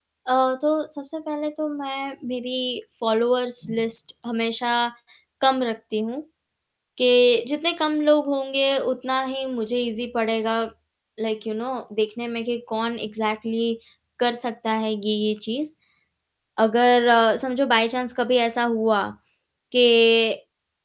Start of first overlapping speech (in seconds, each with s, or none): none